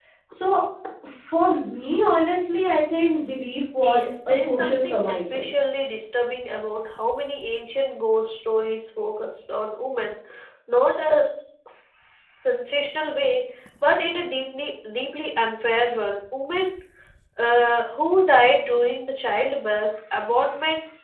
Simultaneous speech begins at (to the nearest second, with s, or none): 4 s